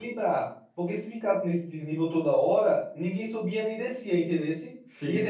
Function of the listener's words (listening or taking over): listening